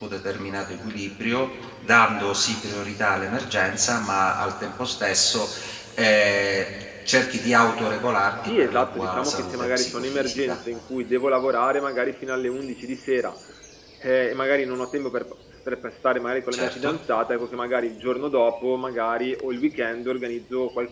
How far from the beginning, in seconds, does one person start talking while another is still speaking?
8.6 s

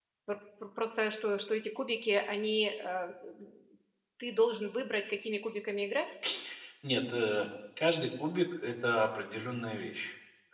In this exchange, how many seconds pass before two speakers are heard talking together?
none

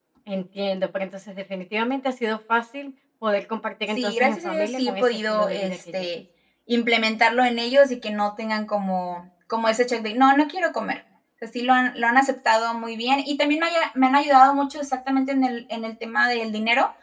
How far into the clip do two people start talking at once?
4.0 s

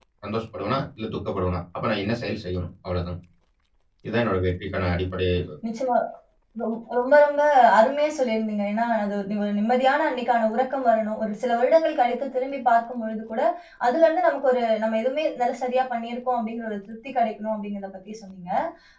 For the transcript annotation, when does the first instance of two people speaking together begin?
none

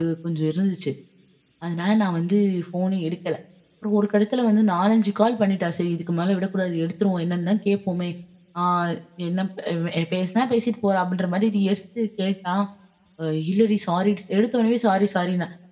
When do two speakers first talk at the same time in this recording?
none

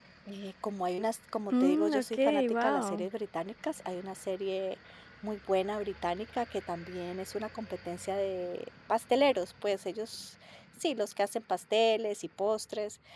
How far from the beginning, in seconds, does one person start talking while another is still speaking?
1.5 s

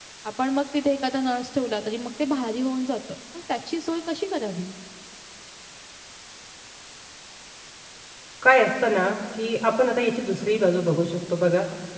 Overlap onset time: none

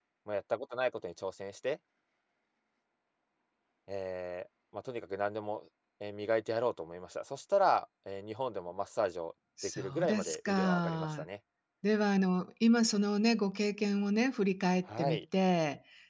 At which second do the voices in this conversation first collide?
9.8 s

